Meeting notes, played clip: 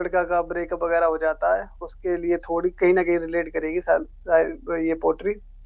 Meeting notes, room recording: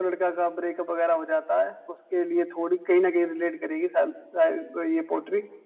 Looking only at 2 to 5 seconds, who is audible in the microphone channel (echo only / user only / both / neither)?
echo only